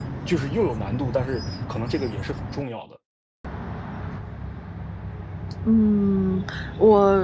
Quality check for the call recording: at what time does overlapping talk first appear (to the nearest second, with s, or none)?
none